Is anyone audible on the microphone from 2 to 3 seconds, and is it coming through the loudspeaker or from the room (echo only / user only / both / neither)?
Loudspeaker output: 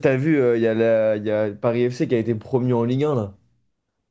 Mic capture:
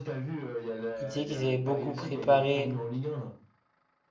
both